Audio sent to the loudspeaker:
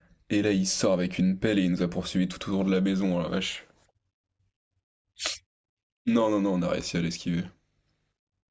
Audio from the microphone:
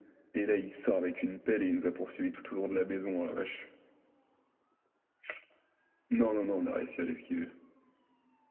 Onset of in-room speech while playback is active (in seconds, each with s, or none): none